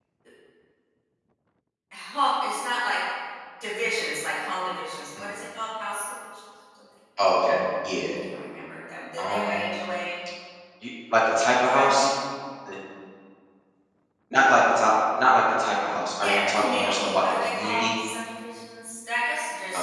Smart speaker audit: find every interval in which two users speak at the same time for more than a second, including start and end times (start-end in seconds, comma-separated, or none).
16.2-17.9